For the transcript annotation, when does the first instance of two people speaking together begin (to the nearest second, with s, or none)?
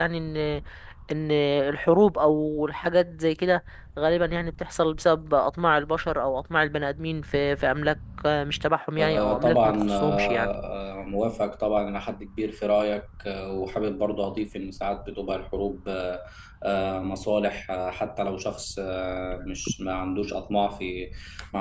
9 s